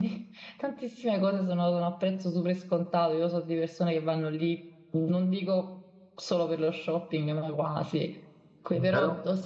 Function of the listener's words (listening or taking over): listening